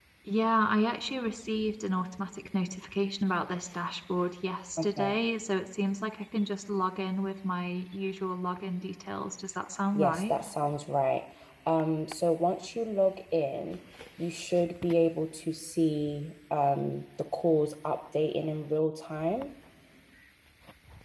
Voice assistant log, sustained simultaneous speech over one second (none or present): none